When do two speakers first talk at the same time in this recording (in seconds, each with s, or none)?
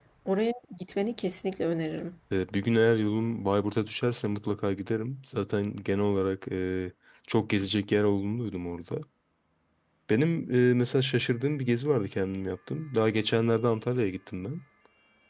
none